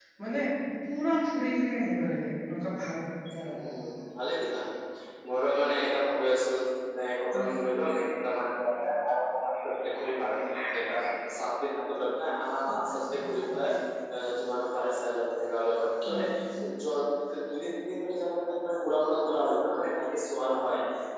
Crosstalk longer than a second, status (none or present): none